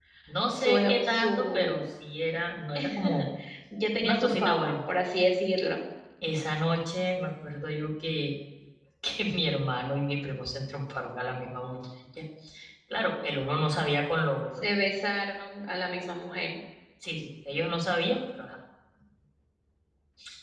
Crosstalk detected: Yes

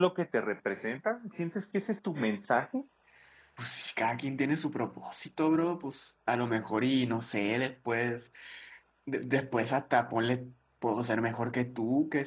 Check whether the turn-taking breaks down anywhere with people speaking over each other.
No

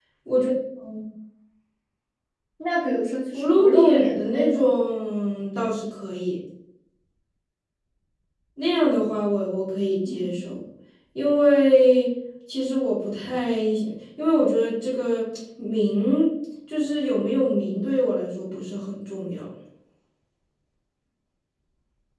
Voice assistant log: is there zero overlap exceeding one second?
No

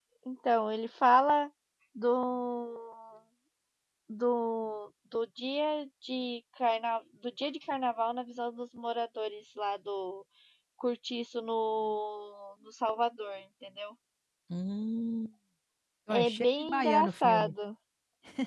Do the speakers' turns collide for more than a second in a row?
Yes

